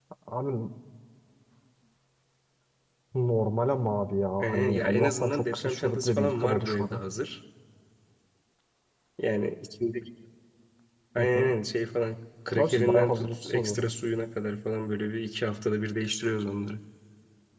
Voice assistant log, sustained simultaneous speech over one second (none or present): present